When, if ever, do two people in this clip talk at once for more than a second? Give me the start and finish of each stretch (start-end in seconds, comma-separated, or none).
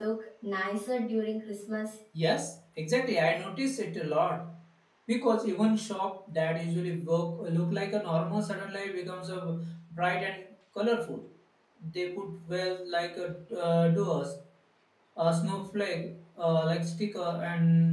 none